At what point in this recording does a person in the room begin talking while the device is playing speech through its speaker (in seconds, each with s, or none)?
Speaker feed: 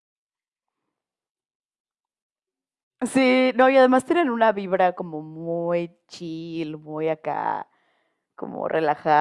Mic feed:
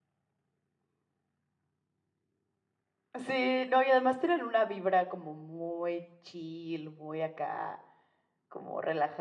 none